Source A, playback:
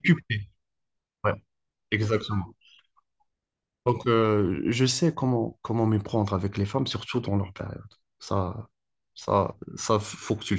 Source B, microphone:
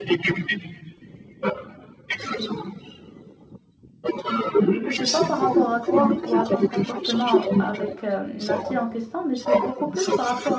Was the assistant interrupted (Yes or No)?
Yes